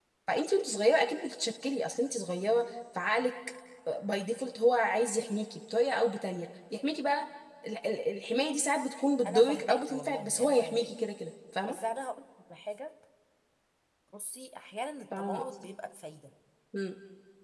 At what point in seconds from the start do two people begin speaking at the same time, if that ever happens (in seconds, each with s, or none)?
9.2 s